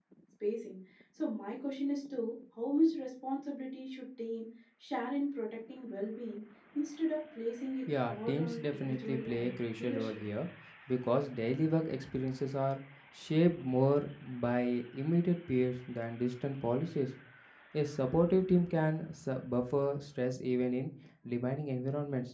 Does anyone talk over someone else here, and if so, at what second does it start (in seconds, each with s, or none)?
8.1 s